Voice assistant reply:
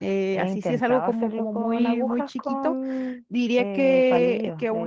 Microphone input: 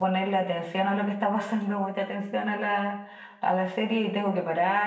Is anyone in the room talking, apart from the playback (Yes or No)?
Yes